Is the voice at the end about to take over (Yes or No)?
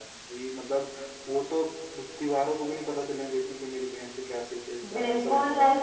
Yes